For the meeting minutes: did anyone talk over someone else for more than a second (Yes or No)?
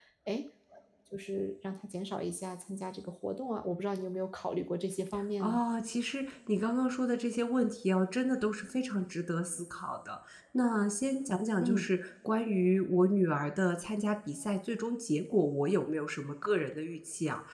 No